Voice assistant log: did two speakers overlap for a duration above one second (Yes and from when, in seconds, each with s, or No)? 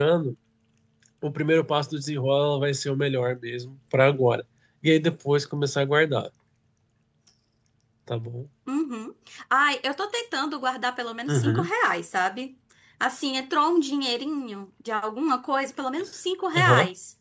No